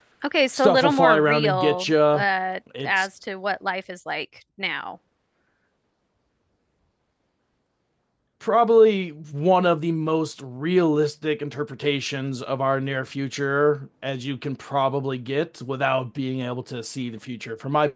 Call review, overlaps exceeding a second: present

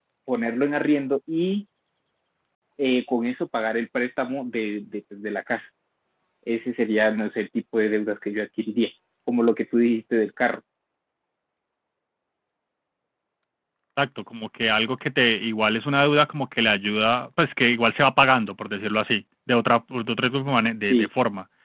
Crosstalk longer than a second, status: none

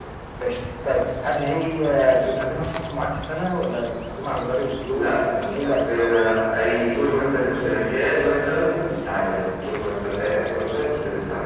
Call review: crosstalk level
present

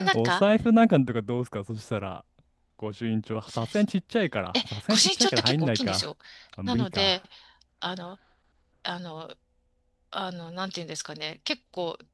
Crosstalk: present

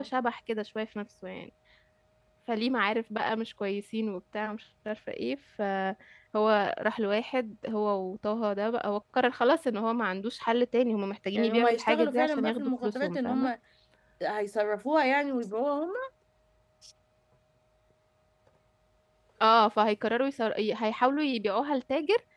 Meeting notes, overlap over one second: present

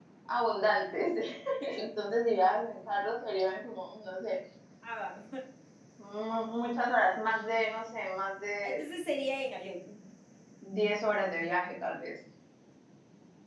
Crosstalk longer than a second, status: none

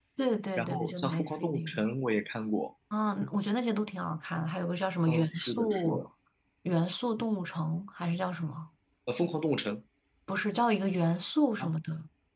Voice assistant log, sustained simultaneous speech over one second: present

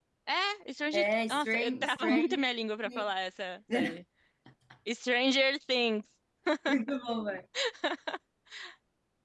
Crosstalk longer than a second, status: present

